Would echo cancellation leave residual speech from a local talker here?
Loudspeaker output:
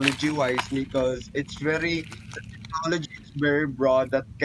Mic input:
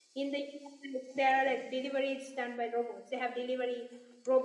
Yes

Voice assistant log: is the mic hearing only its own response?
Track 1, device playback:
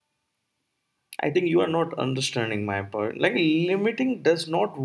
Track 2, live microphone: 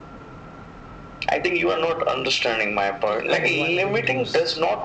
No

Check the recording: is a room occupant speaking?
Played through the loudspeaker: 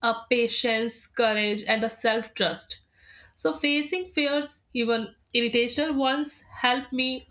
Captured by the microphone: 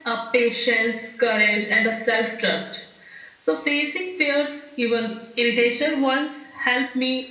No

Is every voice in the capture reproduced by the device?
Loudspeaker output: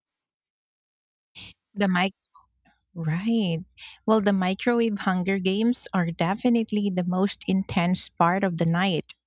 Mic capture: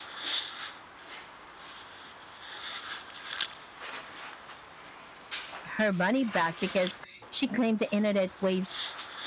No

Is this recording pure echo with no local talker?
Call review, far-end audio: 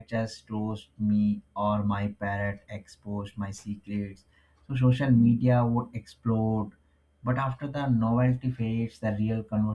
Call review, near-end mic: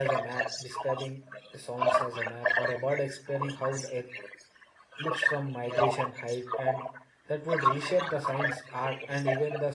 No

